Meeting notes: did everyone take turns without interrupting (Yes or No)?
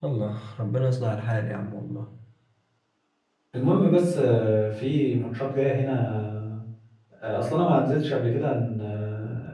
Yes